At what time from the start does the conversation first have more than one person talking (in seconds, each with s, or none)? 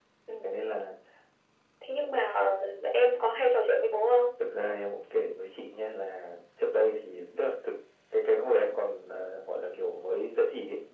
none